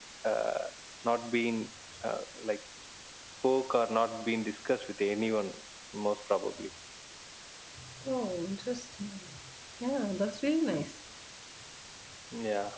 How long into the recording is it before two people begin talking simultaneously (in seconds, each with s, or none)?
none